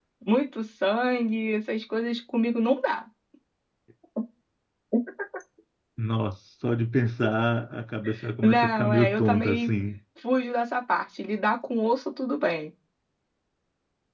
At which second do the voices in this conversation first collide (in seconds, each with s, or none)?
8.4 s